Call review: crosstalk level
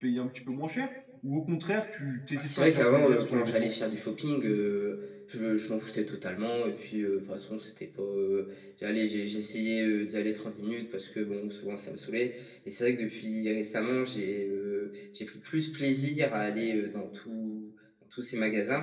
present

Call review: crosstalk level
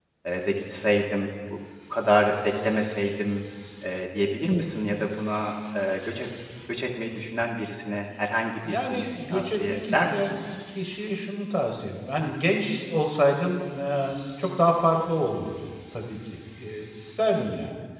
present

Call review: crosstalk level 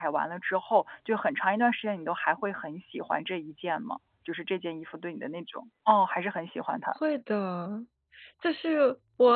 none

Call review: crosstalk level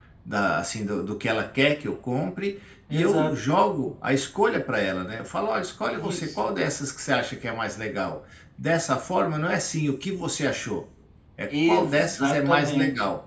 present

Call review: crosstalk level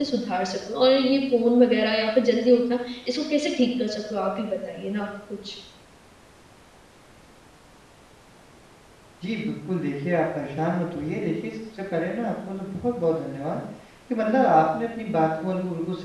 none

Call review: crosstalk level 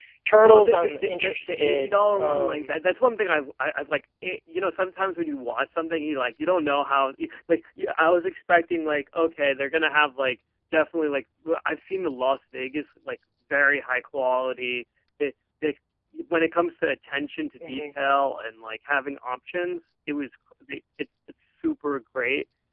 present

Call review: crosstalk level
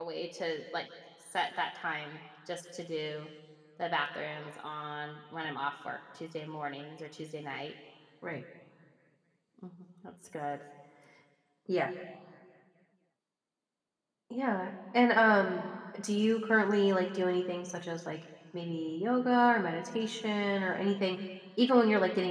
none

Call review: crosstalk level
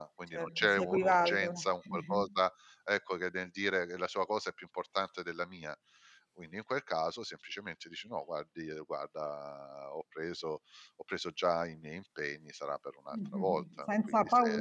present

